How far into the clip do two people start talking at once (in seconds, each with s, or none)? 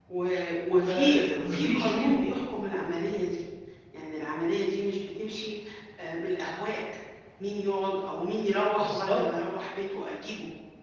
0.8 s